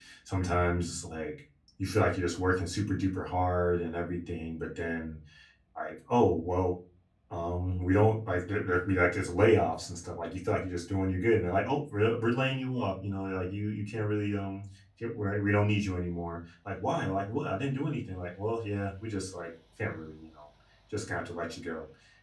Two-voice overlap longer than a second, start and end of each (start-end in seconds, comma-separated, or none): none